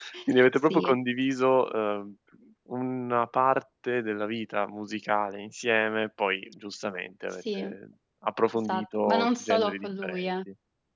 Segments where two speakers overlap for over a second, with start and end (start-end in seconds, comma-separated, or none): 8.7-10.3